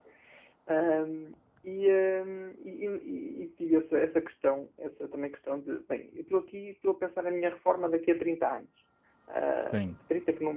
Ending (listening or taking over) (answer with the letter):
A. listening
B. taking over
A